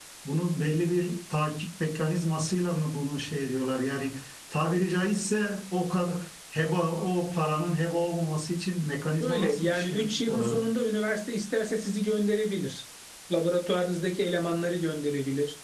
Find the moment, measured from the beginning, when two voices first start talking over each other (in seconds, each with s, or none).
9.2 s